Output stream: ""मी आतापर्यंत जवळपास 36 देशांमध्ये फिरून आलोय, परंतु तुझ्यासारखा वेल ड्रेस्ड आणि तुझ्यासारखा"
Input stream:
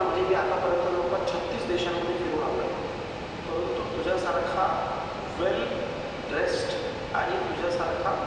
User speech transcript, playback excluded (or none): none